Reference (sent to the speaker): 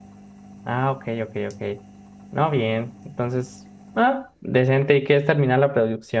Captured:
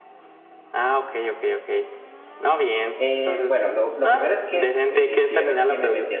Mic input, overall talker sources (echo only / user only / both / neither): both